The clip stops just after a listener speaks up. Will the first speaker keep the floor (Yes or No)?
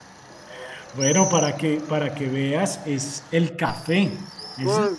No